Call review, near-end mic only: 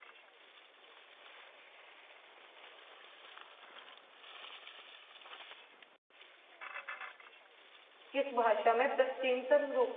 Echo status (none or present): none